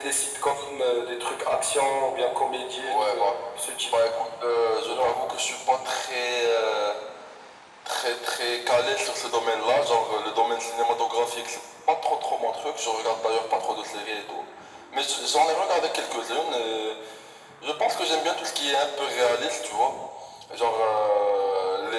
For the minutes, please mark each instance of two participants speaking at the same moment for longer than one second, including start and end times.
none

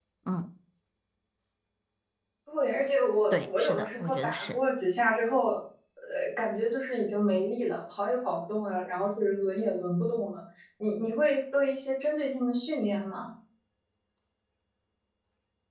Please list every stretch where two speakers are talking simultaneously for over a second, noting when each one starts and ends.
3.3-4.6

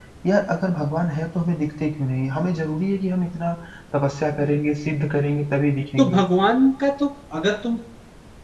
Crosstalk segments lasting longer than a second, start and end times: none

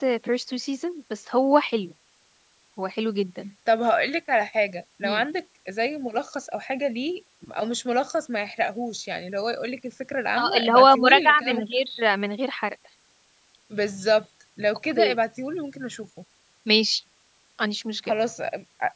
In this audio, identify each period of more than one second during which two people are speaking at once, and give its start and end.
10.4-11.8

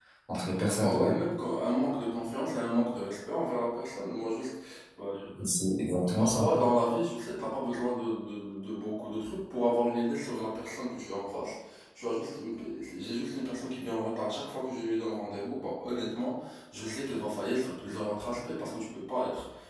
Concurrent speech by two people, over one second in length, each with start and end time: none

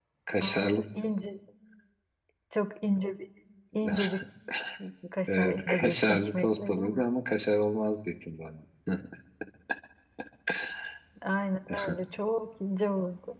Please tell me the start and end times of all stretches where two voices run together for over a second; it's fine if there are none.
5.3-7.1

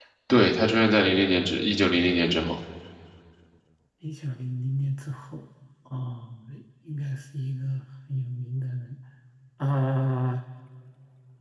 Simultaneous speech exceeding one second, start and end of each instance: none

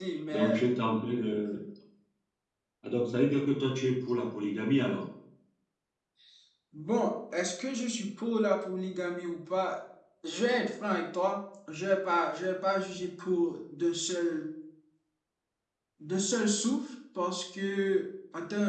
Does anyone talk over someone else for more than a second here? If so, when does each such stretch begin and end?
none

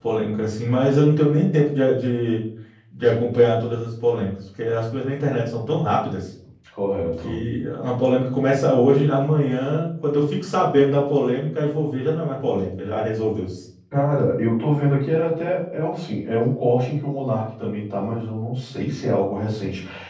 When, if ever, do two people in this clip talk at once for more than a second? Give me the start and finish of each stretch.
none

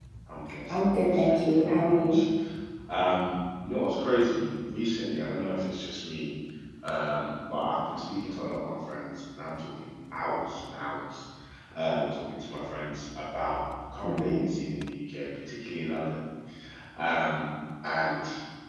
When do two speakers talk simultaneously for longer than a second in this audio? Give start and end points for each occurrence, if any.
0.7-2.2

